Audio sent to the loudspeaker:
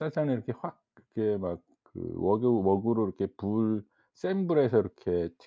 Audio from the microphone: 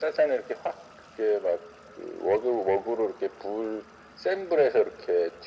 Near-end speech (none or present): none